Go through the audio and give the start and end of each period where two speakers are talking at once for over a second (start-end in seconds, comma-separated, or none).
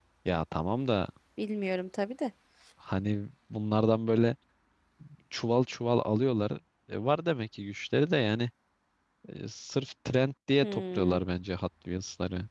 none